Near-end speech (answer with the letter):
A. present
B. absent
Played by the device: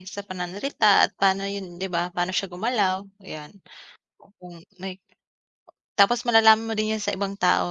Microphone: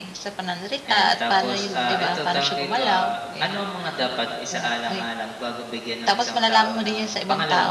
A